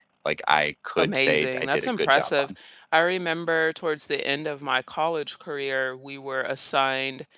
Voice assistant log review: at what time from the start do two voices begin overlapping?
1 s

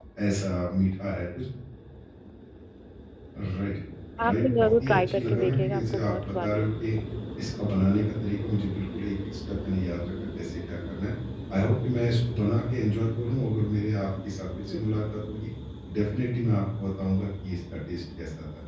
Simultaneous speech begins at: 4 s

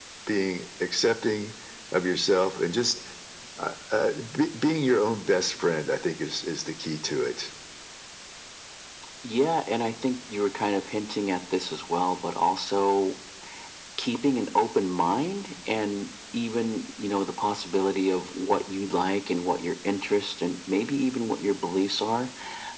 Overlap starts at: none

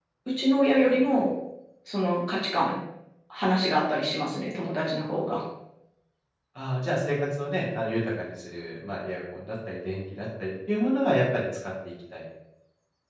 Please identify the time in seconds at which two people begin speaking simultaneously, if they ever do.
none

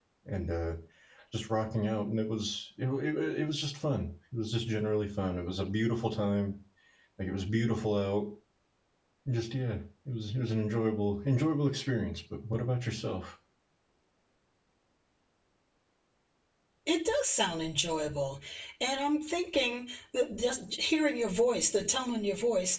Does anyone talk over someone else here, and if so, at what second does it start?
none

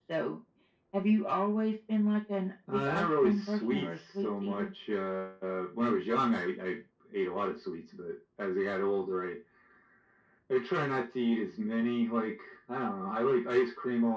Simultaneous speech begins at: 3 s

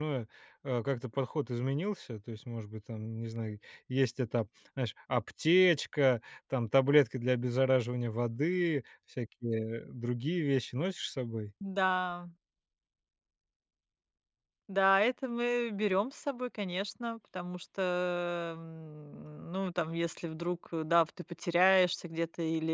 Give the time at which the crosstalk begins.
none

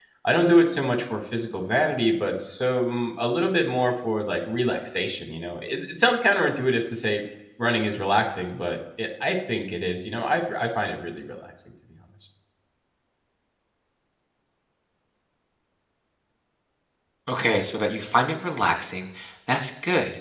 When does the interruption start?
none

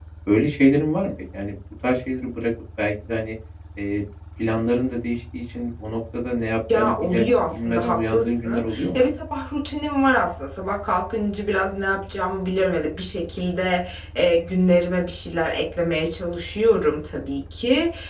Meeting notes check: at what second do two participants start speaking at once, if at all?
7 s

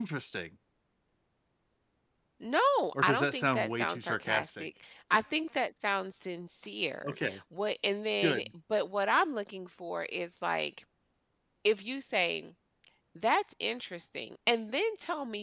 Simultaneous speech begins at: 3 s

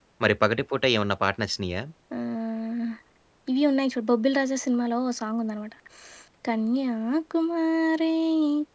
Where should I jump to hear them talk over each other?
none

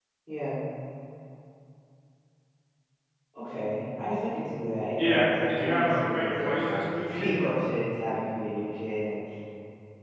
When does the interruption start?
5 s

